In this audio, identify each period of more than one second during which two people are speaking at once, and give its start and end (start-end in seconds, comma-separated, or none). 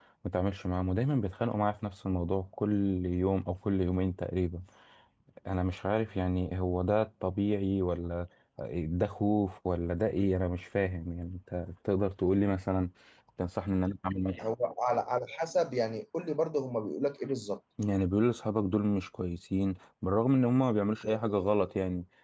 none